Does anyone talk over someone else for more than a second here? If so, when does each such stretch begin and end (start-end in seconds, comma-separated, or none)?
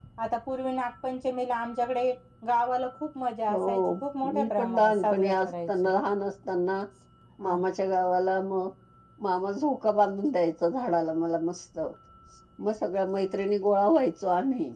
4.3-5.7